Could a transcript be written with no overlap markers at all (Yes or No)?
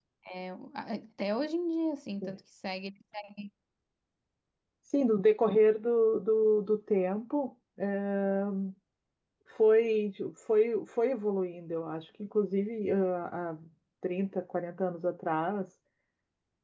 Yes